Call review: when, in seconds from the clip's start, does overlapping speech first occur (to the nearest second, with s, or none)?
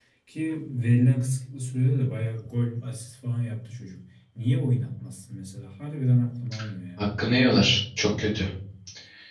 none